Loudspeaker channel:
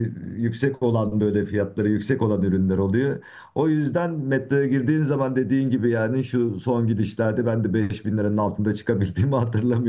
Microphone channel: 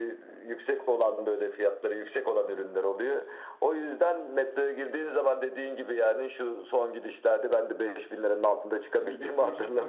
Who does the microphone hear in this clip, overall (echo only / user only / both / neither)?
both